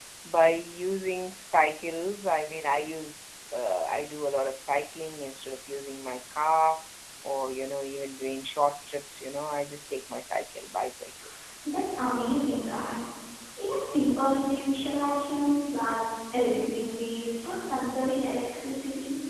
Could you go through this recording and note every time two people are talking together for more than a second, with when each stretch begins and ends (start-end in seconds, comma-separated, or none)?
none